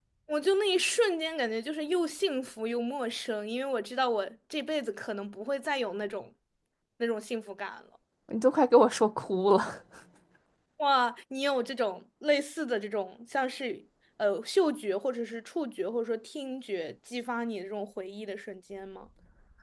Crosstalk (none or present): none